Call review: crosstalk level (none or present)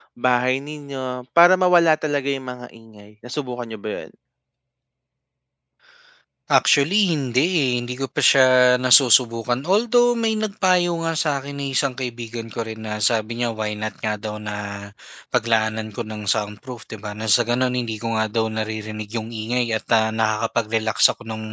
none